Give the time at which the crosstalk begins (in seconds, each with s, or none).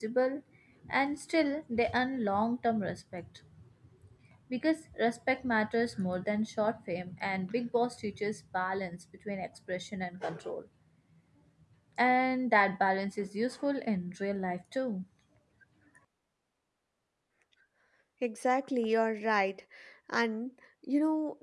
none